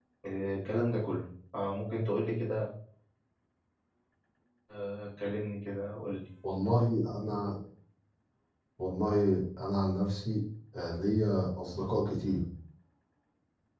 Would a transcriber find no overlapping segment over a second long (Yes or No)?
Yes